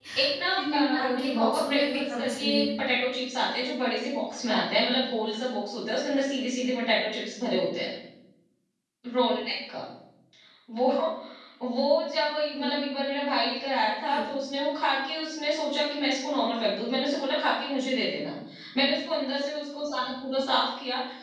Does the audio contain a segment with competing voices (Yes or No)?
Yes